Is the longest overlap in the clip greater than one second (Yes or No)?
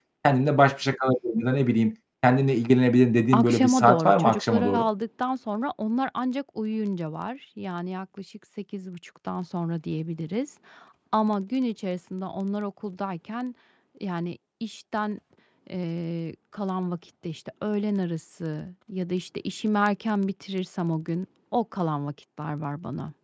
Yes